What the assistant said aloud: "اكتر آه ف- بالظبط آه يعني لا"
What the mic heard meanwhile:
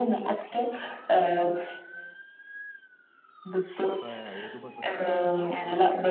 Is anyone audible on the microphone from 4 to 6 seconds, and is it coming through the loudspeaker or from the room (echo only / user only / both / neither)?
both